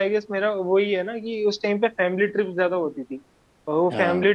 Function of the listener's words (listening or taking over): listening